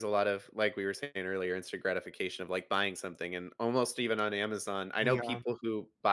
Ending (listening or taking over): listening